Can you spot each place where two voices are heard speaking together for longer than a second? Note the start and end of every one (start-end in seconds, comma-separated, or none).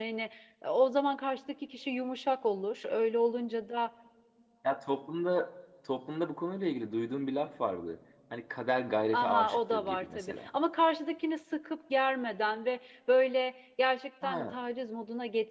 9.1-10.5